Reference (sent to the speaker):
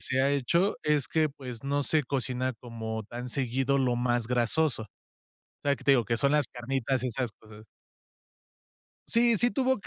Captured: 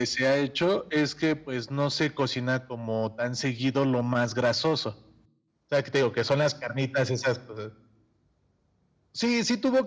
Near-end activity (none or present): none